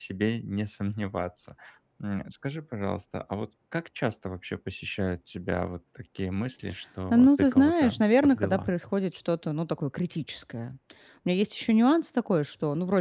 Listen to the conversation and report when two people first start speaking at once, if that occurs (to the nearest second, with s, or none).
7 s